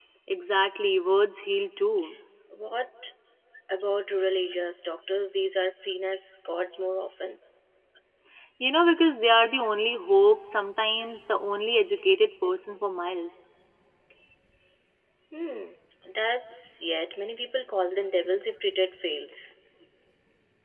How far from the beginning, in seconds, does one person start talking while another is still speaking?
none

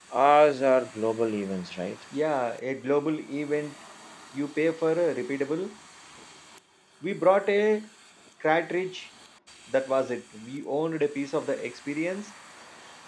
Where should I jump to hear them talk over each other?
none

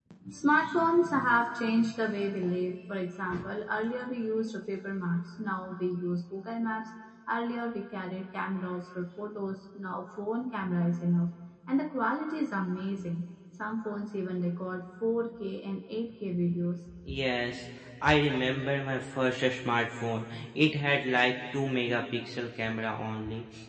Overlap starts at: none

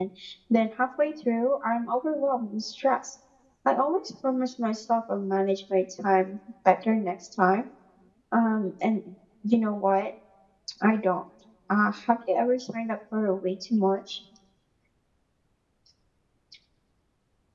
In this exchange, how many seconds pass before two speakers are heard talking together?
none

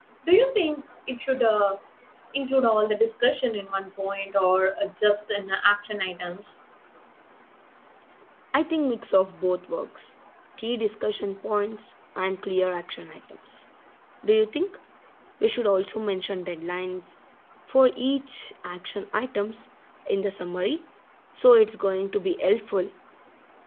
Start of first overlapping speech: none

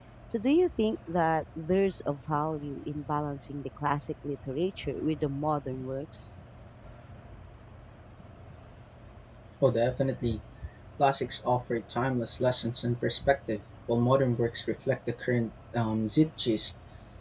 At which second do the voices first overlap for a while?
none

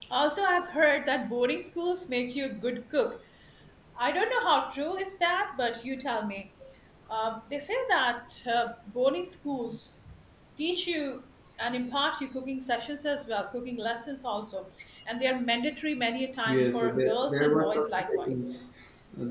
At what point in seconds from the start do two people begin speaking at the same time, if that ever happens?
16.5 s

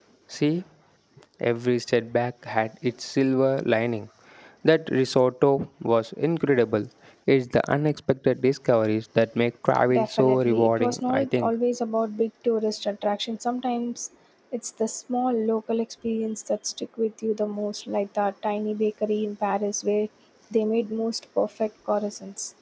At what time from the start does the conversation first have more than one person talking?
9.9 s

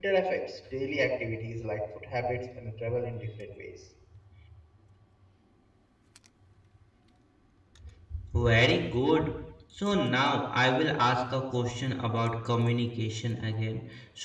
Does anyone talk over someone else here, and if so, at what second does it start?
none

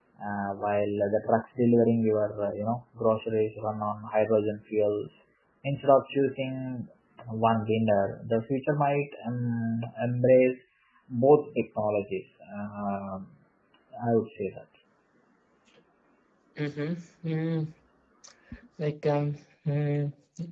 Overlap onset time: none

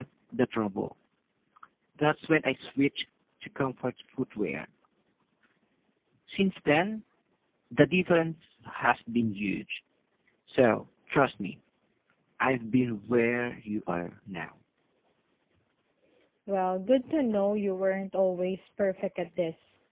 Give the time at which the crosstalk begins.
none

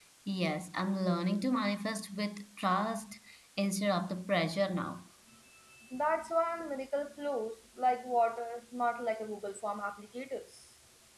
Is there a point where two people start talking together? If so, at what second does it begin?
none

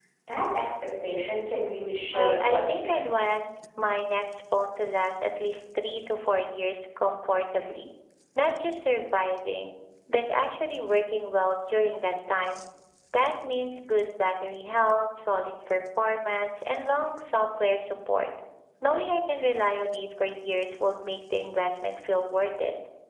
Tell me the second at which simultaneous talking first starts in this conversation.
2.1 s

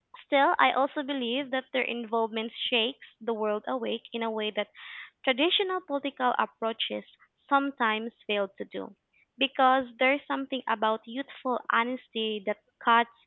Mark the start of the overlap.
none

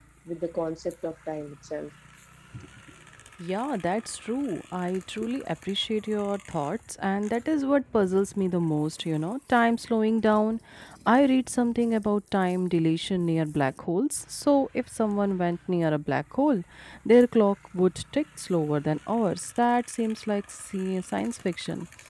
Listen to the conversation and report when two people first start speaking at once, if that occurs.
none

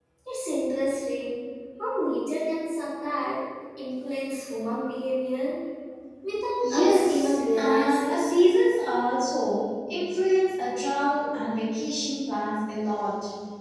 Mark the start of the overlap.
6.6 s

